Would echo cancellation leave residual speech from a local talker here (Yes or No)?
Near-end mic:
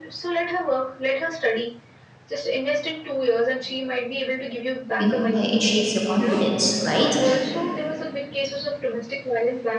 Yes